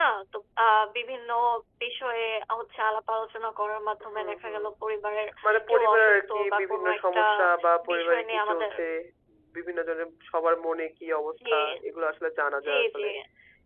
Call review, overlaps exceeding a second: present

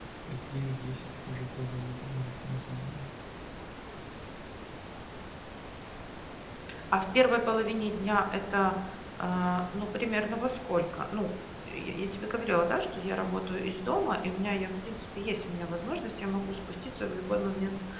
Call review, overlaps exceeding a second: none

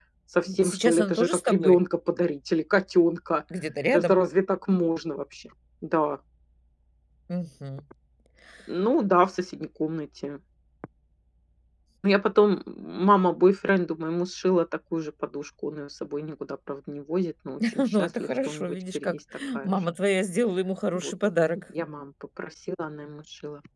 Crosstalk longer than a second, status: present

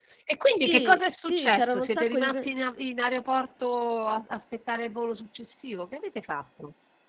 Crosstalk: present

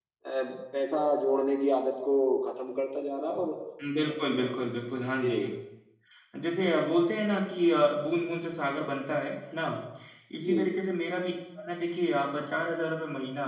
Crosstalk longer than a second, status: none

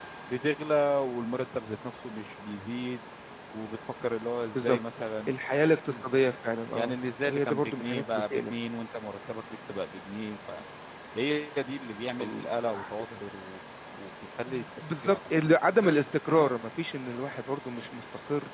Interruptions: present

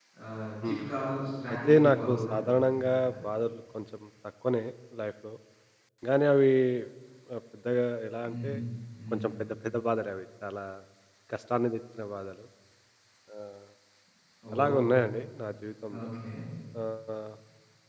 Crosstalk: present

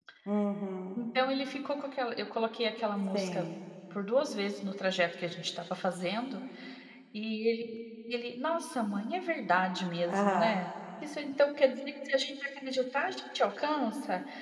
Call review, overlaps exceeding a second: none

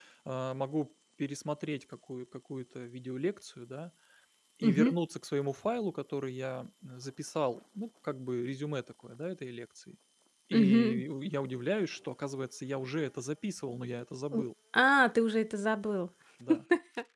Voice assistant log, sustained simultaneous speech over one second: none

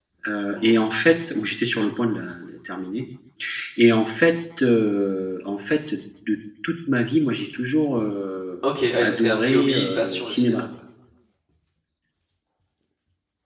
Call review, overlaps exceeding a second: present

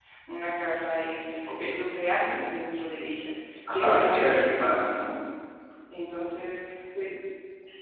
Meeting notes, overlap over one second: present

